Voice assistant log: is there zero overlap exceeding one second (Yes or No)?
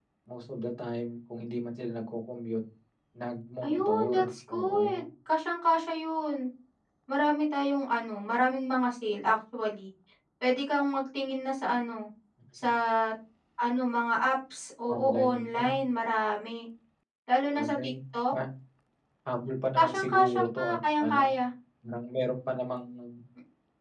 No